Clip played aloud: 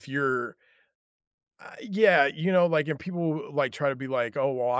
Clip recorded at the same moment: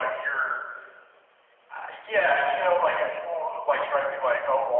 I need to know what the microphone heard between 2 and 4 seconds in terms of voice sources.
echo only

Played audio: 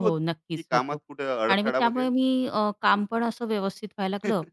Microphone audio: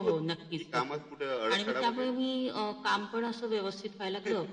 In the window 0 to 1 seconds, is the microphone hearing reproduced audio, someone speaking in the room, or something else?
echo only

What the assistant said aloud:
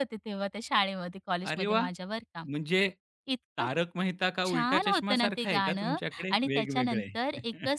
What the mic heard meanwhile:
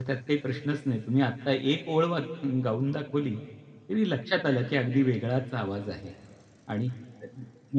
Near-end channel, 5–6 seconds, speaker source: user only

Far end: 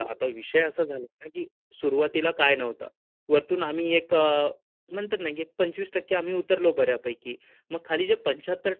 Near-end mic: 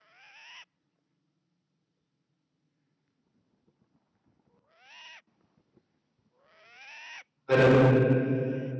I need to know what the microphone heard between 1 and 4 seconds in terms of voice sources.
neither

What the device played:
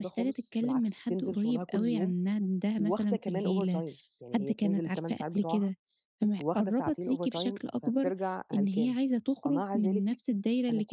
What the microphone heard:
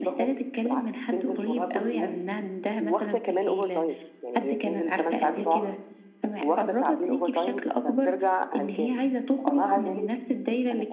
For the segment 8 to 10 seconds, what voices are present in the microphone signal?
echo only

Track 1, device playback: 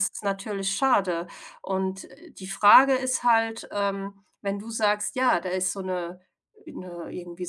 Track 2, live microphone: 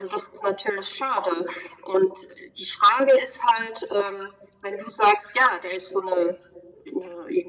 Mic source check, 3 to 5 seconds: echo only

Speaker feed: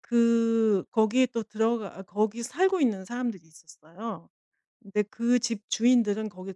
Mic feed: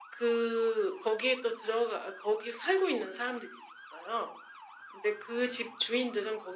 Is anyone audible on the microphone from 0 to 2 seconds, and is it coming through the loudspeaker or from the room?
echo only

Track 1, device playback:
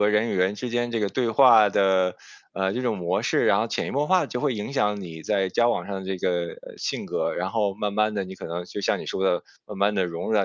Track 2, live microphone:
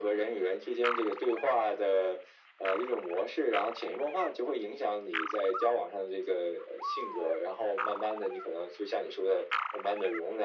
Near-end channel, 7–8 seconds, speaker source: echo only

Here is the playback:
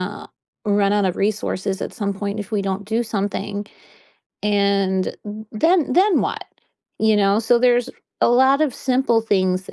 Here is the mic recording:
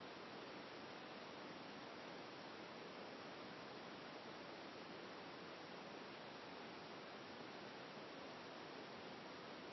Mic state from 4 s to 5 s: neither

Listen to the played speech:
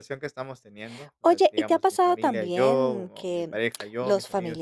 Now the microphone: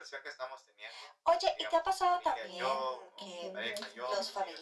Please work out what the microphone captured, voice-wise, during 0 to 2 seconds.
echo only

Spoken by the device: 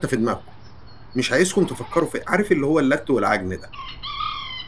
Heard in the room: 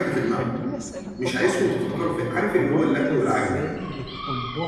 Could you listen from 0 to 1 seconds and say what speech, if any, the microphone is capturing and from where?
both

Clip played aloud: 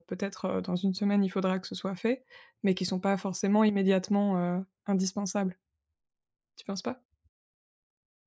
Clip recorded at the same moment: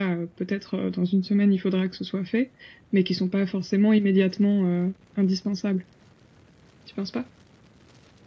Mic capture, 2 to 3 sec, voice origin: echo only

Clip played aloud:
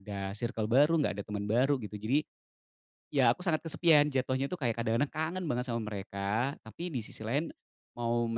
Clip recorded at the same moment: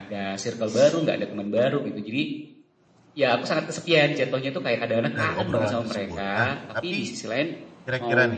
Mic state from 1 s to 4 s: echo only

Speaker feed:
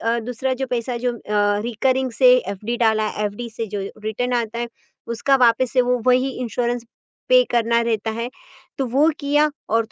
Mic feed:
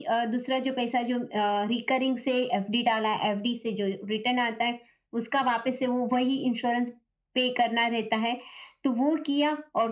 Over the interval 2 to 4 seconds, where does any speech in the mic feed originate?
echo only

